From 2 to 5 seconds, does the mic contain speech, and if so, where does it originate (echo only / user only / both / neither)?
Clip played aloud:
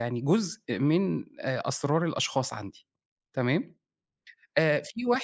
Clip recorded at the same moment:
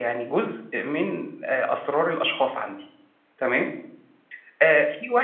echo only